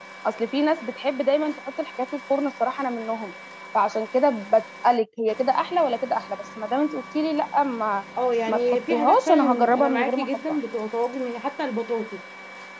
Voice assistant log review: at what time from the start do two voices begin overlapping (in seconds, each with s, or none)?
8.5 s